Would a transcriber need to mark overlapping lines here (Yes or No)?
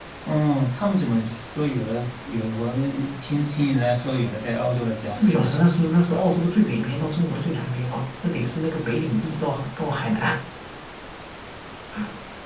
Yes